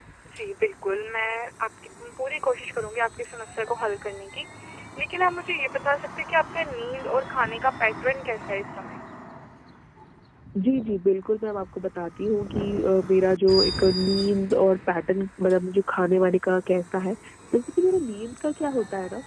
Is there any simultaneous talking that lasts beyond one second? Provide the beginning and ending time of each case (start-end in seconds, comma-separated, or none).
none